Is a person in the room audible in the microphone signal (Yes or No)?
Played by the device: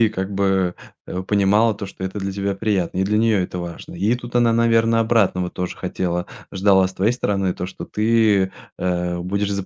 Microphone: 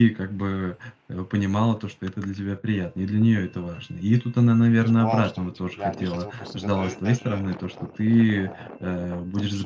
Yes